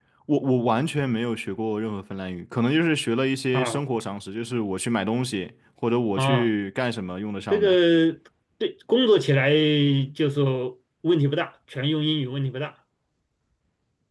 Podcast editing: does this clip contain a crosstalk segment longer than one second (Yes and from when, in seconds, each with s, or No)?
No